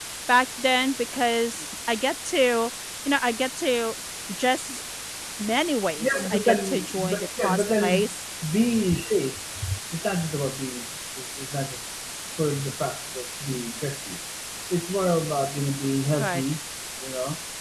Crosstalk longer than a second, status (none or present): present